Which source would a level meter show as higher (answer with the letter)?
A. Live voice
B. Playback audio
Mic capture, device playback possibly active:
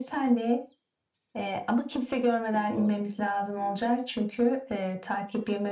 B